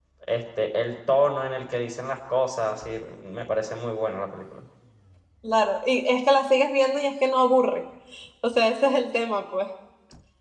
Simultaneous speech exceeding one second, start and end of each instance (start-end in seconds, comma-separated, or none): none